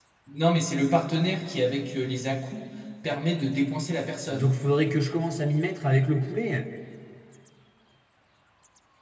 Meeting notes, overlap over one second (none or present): none